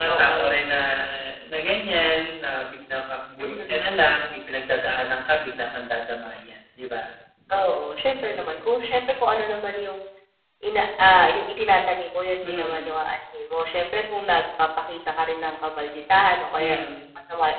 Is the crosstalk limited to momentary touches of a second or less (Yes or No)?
Yes